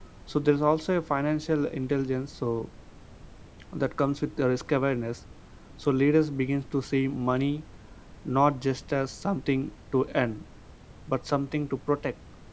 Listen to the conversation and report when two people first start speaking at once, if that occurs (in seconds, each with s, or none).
none